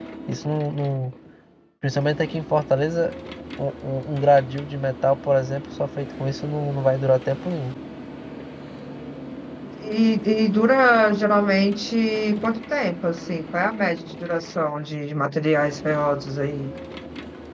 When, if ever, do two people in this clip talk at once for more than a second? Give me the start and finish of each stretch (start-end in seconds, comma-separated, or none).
none